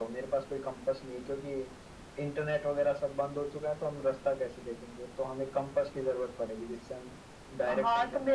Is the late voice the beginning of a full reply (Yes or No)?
Yes